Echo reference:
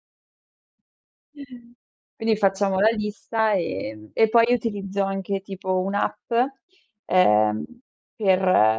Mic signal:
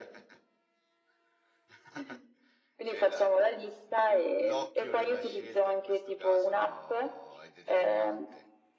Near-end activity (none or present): present